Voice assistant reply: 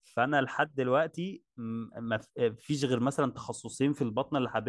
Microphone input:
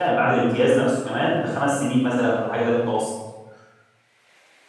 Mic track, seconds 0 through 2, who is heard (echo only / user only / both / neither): user only